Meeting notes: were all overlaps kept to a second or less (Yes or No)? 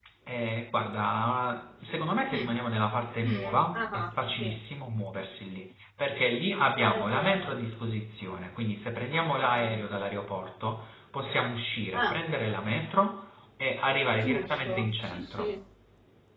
No